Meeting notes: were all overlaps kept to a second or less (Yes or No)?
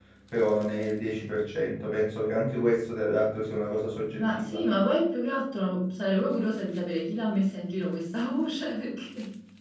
Yes